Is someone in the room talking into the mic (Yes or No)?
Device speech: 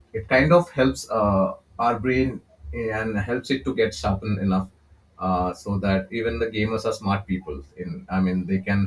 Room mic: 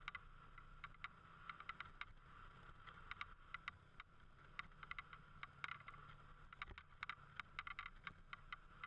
No